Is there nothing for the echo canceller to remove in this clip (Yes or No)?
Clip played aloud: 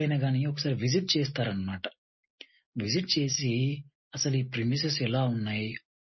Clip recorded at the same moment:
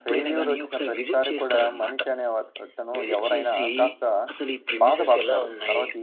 No